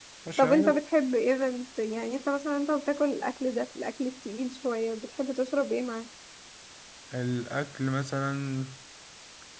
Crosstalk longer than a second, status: none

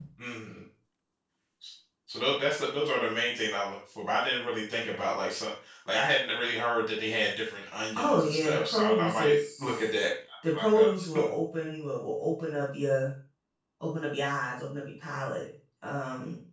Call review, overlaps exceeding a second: present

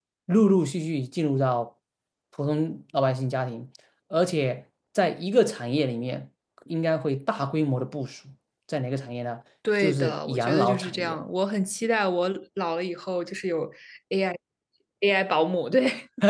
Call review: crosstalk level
present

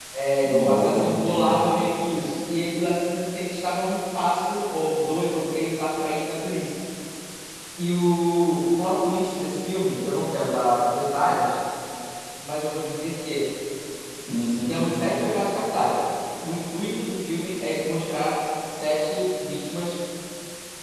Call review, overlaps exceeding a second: present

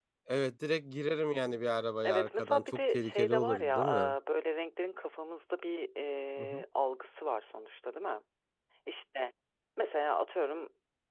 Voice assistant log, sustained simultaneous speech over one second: present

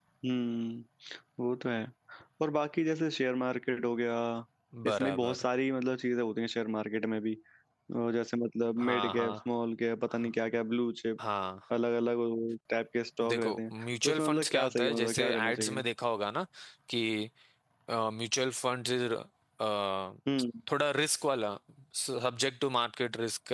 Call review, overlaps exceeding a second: present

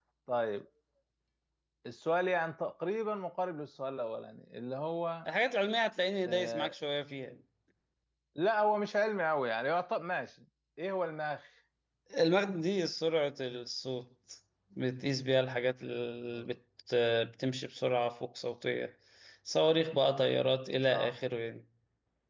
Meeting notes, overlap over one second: none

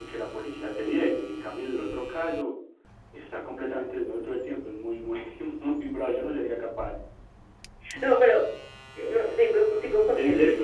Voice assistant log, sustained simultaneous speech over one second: none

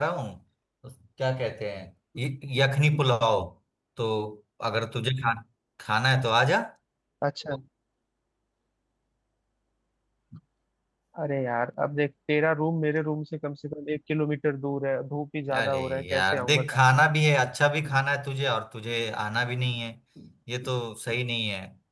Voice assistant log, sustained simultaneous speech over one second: present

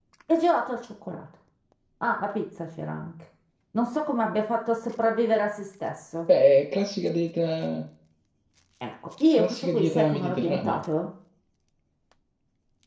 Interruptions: present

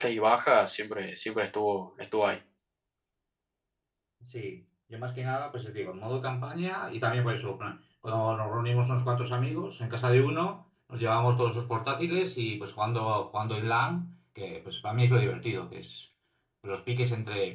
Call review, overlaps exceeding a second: none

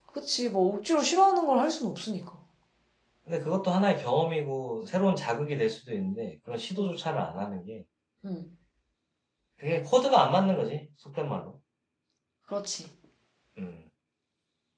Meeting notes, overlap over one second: none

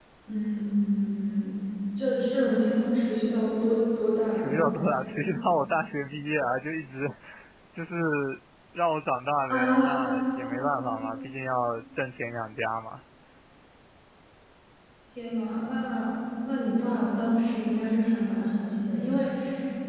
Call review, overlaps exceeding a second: none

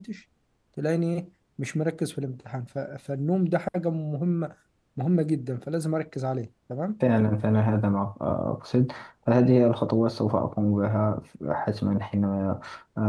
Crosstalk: none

